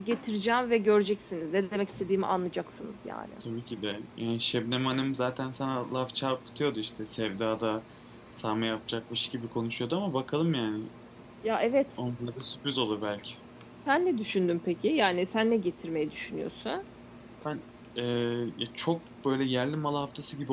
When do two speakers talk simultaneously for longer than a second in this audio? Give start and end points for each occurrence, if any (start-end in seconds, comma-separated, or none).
none